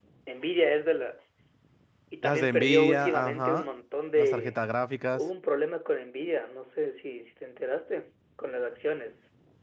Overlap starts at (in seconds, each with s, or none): 2.2 s